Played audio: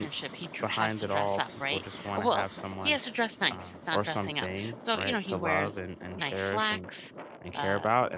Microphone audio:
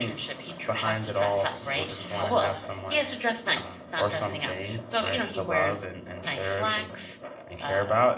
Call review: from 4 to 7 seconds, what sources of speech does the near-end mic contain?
echo only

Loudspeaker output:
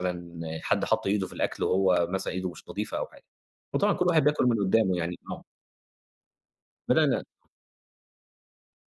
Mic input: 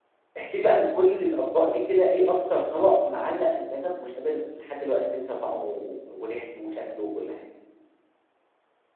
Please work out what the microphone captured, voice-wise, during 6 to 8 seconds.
user only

